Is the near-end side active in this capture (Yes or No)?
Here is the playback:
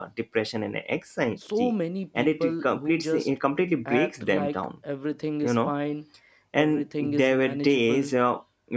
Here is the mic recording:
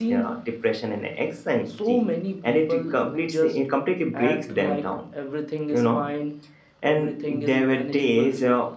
No